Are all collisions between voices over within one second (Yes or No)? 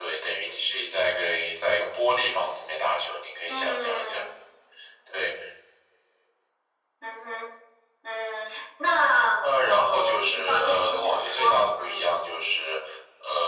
No